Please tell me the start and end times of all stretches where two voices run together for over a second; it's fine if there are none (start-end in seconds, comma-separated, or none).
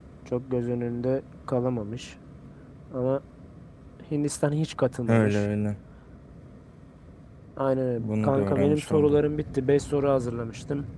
8.0-9.2